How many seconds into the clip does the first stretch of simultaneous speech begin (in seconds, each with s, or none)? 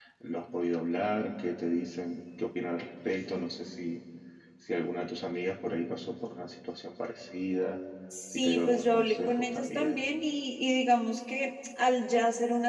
8.3 s